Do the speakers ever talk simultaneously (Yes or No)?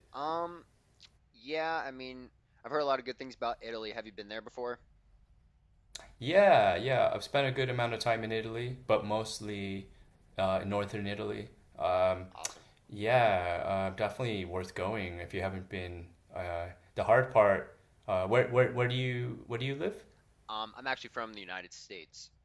No